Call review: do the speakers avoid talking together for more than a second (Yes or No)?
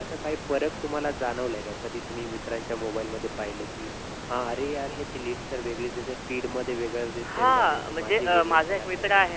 No